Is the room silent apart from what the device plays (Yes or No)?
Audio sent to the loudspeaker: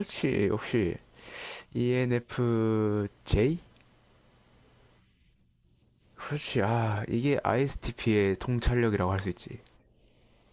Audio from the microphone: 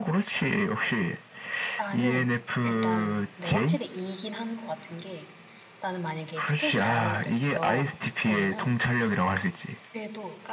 No